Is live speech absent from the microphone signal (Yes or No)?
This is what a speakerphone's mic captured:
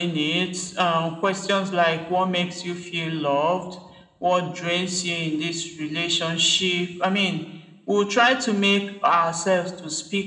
Yes